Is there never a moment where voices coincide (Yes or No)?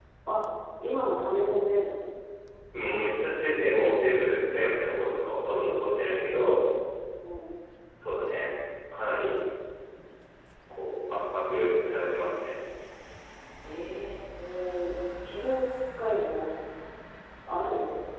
Yes